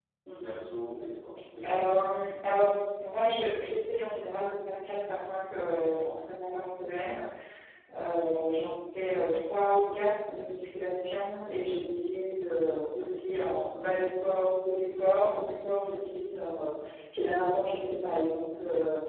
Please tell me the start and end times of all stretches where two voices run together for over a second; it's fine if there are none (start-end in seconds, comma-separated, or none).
none